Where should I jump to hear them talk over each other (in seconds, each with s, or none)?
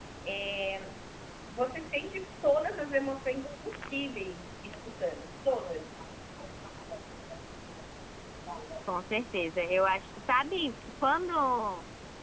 none